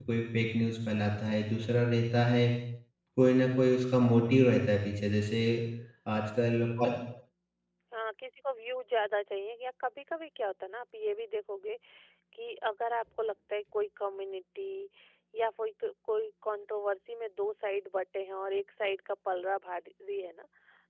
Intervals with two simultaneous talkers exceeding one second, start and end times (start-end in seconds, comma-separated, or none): none